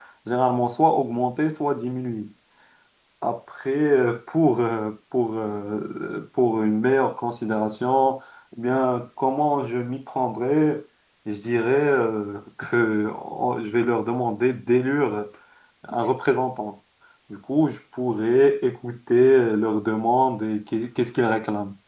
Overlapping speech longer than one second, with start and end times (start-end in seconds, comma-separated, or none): none